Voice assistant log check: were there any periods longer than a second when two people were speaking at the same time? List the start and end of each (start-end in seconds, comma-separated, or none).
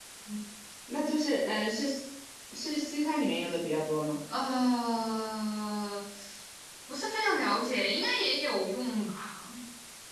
none